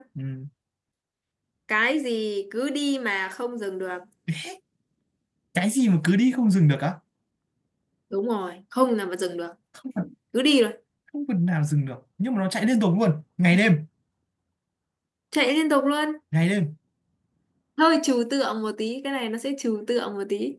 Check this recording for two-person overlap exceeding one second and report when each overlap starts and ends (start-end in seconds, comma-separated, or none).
none